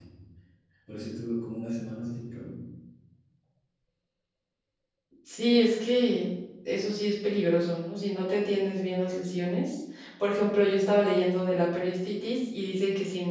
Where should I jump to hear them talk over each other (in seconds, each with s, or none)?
none